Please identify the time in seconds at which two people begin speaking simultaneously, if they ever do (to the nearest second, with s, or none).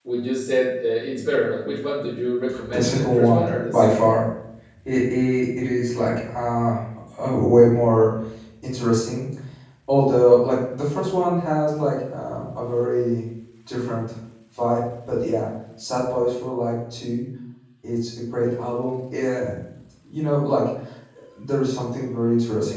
3 s